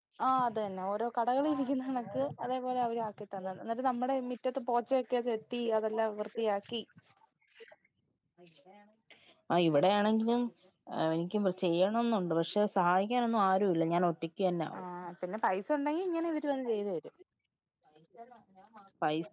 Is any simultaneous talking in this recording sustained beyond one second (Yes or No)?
No